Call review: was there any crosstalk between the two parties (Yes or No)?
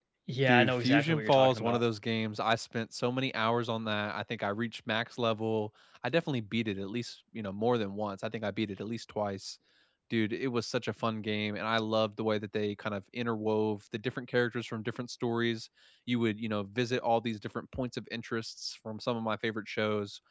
Yes